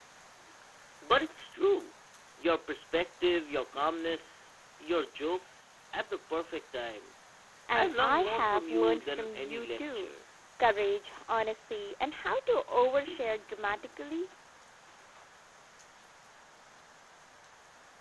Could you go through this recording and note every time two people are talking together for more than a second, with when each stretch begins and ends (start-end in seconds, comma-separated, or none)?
7.7-10.1